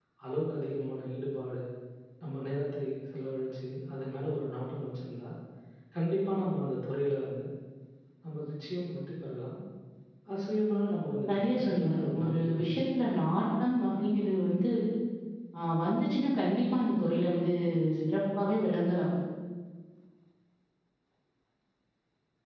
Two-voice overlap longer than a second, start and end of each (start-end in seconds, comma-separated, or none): 11.3-12.8